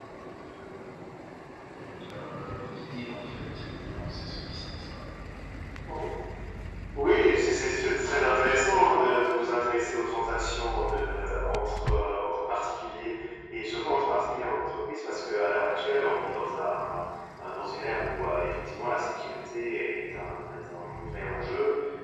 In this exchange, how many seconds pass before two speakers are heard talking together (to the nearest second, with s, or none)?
none